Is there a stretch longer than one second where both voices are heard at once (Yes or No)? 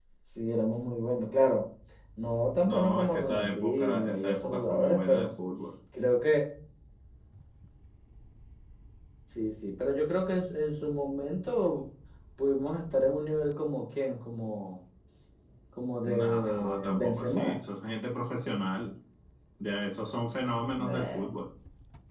Yes